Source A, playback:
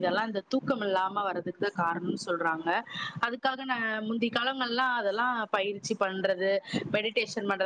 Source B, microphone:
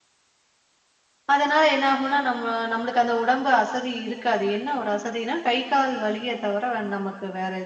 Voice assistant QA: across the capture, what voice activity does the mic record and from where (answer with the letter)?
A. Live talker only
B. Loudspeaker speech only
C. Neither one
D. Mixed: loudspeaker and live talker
A